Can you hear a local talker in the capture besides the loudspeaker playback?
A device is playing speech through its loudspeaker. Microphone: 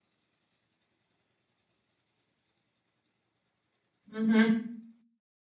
Yes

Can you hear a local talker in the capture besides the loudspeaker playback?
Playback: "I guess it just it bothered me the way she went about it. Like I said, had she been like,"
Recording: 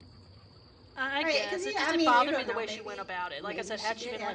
Yes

